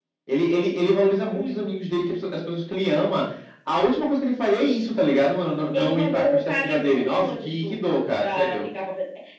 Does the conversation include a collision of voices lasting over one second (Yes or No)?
Yes